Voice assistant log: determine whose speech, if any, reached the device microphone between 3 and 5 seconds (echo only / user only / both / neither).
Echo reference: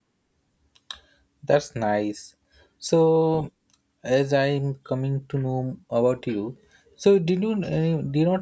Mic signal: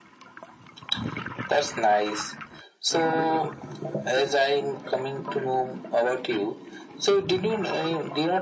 echo only